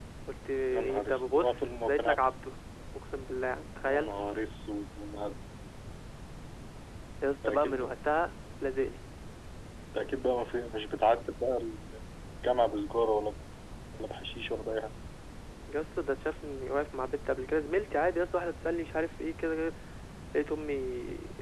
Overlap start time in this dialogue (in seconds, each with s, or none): 0.7 s